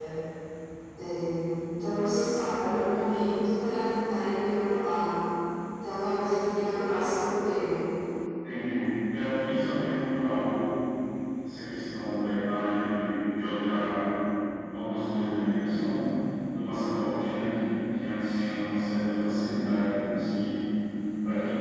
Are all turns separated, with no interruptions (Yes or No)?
Yes